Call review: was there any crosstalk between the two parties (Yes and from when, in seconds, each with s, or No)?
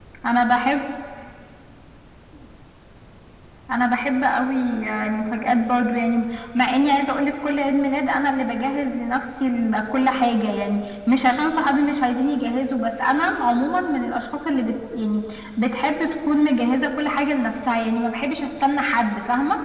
No